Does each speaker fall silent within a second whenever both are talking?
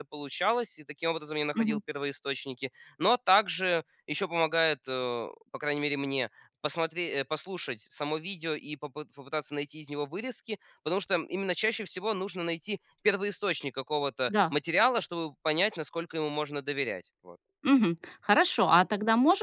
Yes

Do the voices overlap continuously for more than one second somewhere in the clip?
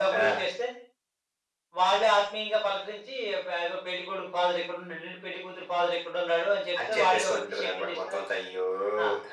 Yes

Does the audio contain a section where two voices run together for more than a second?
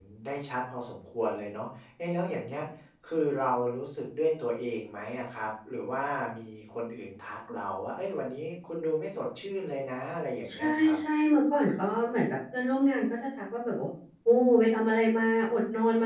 No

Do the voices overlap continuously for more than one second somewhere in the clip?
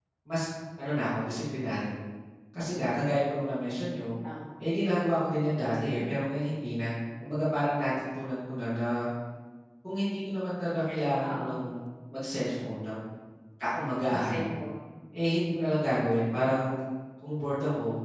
No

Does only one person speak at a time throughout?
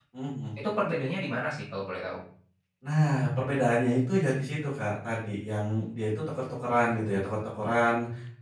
Yes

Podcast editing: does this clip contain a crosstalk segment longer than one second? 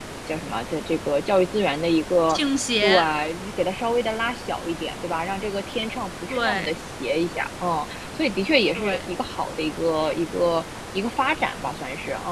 No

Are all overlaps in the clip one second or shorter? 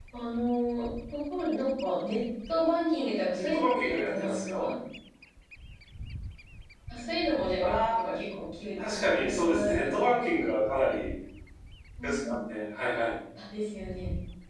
No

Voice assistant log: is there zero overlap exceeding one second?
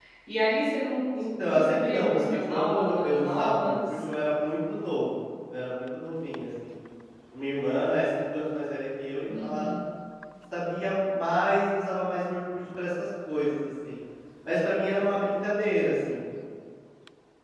No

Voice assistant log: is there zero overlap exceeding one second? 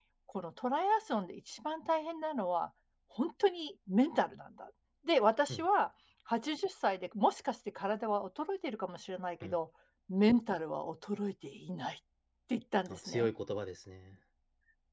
Yes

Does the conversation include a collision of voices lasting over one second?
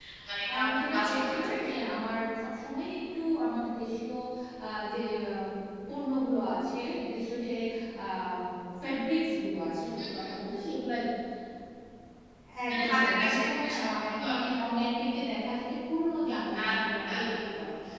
Yes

